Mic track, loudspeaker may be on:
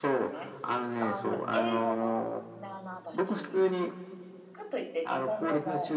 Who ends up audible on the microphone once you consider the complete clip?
both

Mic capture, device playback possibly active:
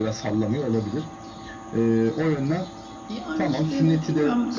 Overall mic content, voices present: both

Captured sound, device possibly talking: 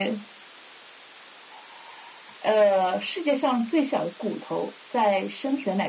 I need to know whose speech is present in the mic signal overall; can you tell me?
echo only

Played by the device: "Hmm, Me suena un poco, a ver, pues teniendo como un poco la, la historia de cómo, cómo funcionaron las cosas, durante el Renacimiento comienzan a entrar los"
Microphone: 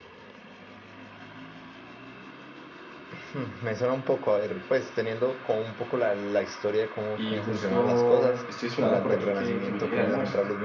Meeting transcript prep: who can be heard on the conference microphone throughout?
both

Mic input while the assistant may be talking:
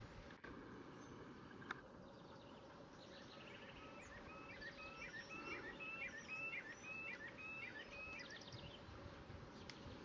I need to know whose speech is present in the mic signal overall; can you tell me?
neither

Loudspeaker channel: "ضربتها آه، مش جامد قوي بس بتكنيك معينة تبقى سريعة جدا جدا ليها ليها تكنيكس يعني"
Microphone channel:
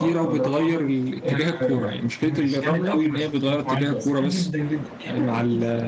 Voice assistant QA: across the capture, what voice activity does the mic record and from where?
both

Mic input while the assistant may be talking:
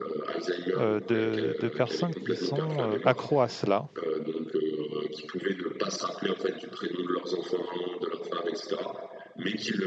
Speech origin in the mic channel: both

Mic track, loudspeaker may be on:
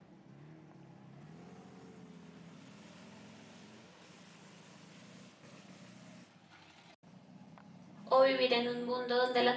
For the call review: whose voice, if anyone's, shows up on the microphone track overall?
user only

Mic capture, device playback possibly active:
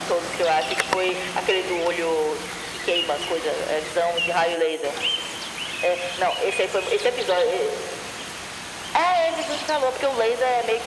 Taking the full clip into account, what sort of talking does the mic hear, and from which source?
echo only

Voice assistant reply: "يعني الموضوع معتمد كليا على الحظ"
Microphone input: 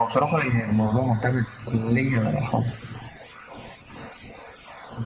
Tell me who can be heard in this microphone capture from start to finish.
echo only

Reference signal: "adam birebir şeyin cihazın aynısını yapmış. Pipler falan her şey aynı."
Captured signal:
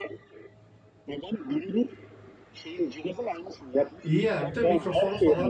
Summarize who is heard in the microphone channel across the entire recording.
both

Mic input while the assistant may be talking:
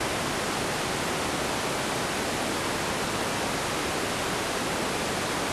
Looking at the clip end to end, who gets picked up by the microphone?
neither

